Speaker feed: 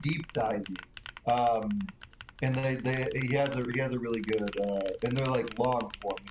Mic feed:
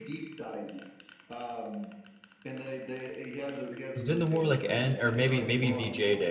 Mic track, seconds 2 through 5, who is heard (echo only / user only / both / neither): both